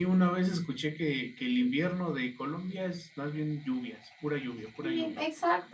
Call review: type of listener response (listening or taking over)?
taking over